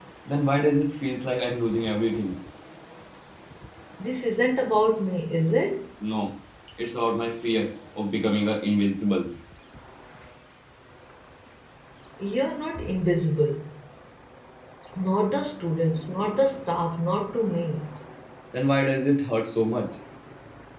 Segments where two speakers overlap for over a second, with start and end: none

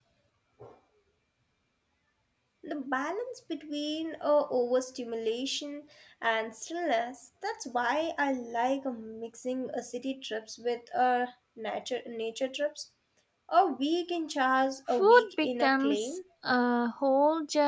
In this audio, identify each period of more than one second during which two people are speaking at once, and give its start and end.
14.9-16.2

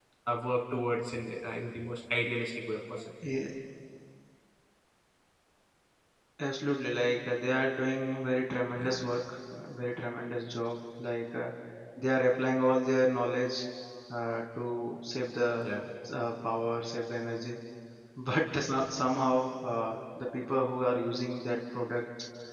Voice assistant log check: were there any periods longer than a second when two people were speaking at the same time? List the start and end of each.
none

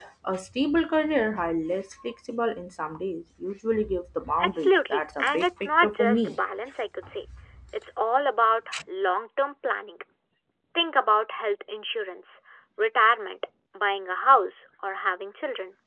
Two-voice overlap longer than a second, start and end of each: 4.4-6.3

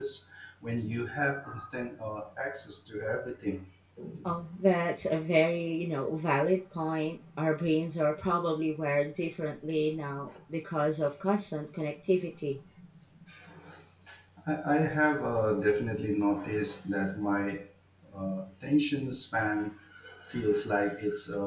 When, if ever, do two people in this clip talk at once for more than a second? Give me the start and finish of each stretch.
none

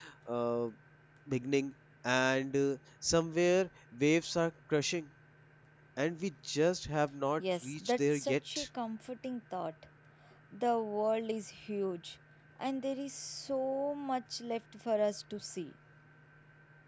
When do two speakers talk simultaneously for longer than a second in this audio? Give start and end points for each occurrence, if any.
7.4-8.7

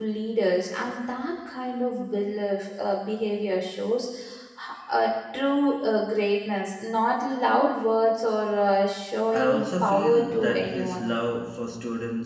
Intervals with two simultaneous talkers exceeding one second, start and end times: 9.3-11.1

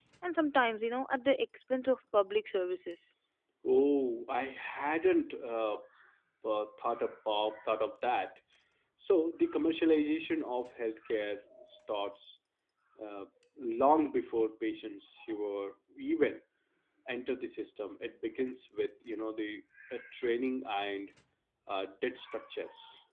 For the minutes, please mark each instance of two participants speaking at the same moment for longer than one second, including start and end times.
none

